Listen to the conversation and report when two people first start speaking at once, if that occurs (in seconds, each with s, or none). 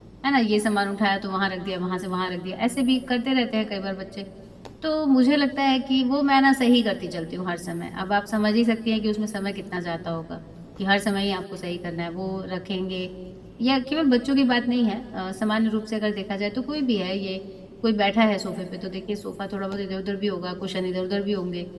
none